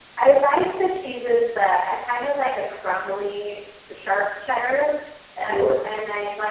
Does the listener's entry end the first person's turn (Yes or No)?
No